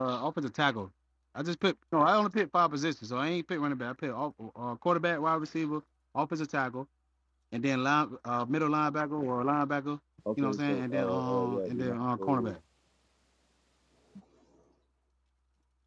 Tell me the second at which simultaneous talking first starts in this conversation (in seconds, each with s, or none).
10.4 s